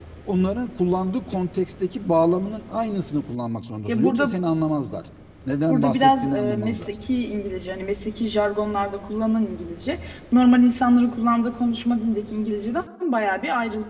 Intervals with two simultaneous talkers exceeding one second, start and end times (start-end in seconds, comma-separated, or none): 5.7-6.9